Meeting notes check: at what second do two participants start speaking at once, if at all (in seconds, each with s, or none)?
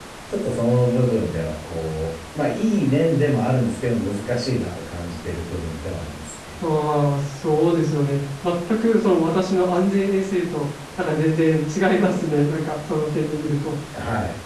none